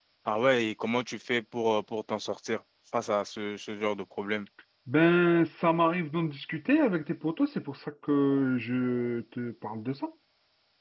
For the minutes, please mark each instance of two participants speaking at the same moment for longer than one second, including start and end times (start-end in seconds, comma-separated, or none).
none